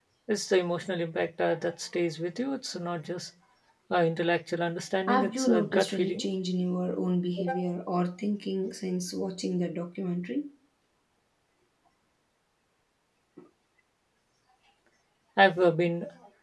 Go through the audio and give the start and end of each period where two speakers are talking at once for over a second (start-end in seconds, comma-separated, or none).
5.1-6.3